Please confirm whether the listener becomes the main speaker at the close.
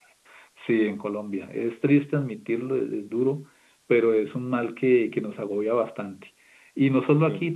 No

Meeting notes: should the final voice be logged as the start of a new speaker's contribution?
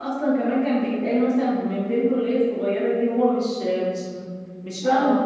Yes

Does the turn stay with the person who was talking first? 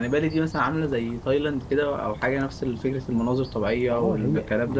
No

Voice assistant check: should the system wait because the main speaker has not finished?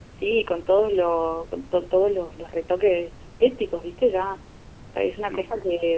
Yes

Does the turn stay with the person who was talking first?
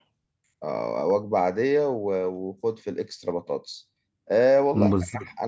Yes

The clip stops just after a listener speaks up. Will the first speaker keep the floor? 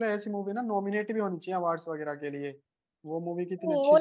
No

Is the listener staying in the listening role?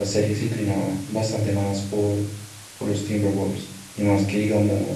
Yes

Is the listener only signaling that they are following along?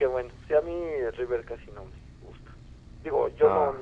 Yes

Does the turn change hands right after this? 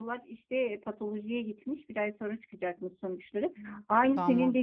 No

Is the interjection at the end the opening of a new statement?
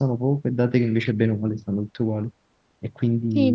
Yes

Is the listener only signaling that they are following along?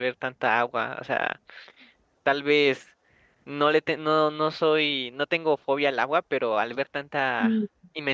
Yes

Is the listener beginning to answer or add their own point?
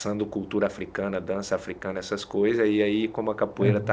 No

